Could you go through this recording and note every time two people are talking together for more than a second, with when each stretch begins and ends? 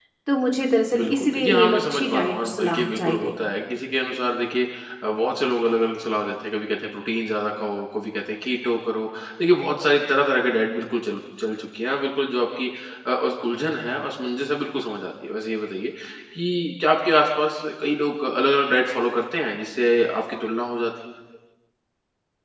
0.9-3.3

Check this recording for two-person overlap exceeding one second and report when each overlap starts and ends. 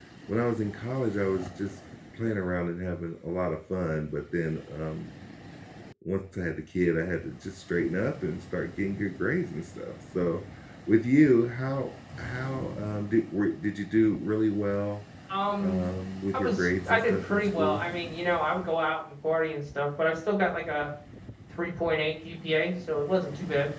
16.3-17.8

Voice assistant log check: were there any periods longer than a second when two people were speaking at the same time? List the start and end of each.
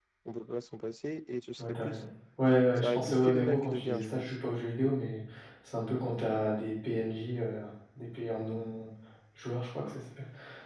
2.8-4.3

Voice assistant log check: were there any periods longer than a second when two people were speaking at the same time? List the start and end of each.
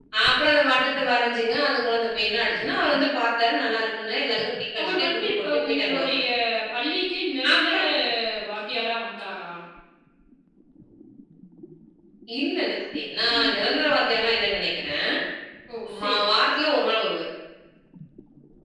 4.8-6.1

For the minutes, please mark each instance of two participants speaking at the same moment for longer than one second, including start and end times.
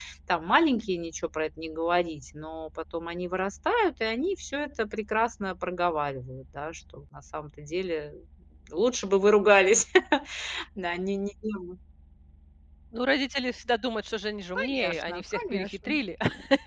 14.6-15.9

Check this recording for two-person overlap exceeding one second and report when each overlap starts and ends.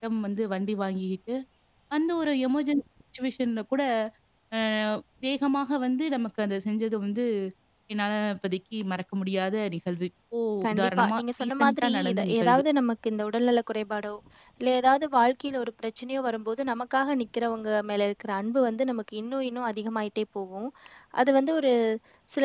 10.7-12.6

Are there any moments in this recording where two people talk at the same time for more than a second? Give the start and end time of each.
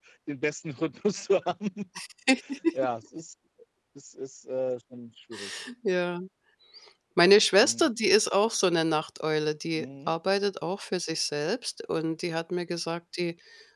none

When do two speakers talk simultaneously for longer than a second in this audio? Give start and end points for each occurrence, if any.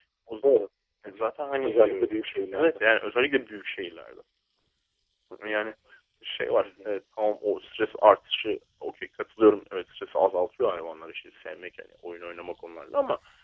none

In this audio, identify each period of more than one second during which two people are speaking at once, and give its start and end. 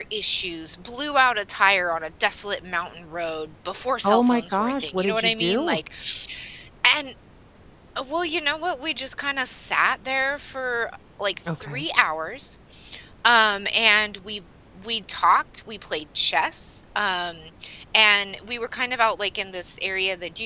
4.0-5.8

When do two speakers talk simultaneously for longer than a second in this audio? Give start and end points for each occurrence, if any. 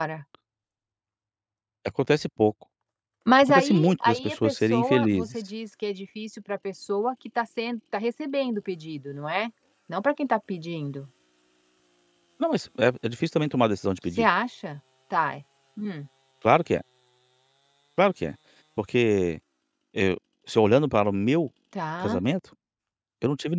3.4-5.4

